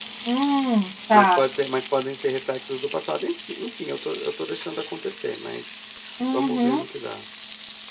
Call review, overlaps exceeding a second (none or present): none